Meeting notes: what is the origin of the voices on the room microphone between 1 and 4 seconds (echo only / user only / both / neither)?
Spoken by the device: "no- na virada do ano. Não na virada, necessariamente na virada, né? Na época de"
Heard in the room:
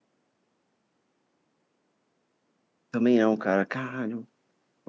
user only